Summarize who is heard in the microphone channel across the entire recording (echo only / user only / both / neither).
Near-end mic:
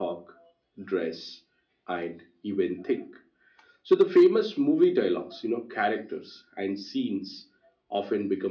echo only